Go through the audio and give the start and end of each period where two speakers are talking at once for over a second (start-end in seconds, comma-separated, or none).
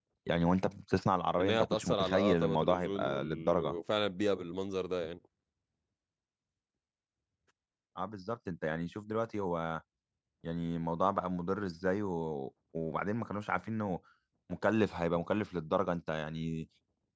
1.4-3.7